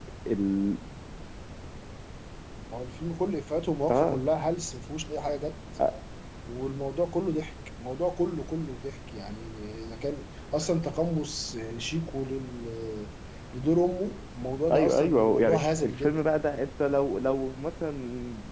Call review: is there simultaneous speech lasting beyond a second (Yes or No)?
Yes